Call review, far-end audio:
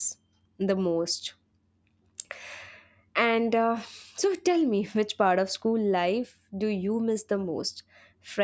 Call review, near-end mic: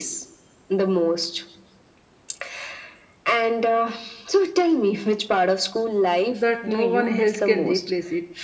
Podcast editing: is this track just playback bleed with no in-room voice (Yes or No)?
No